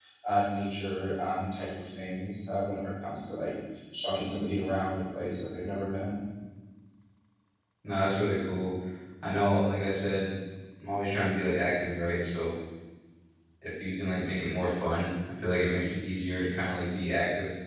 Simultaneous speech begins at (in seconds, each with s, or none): none